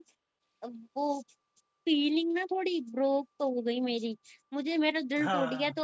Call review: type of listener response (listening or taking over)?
listening